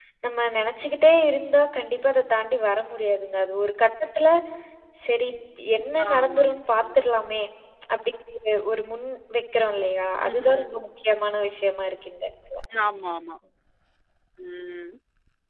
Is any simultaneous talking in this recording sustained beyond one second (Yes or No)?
No